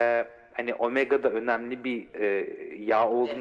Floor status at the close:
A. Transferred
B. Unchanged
B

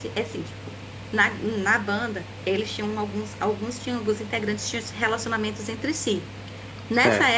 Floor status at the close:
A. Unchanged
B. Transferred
A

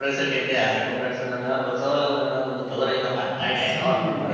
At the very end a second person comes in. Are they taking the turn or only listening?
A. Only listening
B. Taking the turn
B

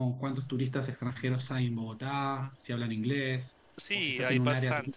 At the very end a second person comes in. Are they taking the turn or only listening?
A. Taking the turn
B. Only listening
A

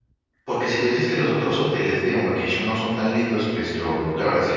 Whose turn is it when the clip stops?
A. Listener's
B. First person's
B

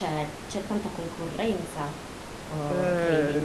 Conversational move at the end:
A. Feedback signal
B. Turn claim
B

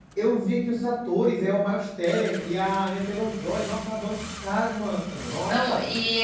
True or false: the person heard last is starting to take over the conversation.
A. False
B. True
B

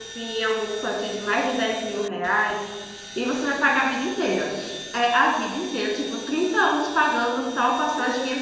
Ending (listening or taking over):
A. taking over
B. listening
A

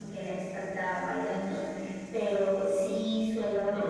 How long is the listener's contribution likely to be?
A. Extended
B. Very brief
B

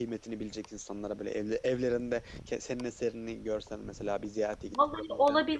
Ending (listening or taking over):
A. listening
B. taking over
B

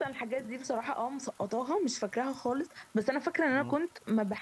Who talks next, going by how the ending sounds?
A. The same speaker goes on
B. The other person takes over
A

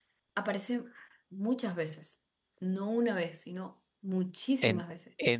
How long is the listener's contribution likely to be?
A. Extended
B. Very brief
A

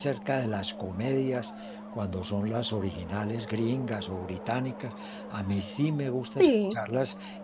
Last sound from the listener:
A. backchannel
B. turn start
A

